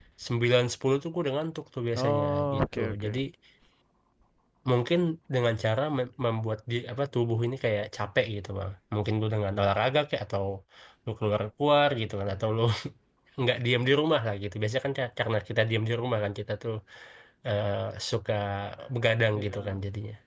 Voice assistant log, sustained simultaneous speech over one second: present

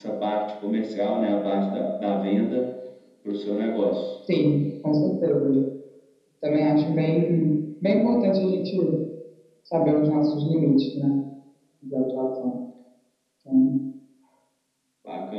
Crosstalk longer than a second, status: none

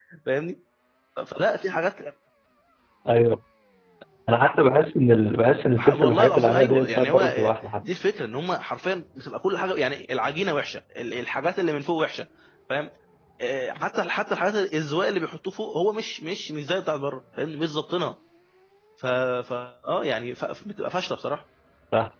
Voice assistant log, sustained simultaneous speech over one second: present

